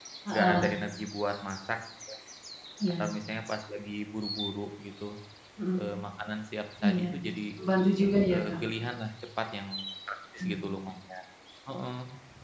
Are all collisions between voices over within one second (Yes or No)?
Yes